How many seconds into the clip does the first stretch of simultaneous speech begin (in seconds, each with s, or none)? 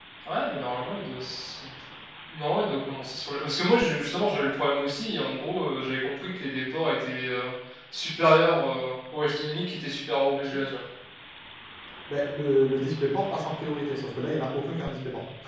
none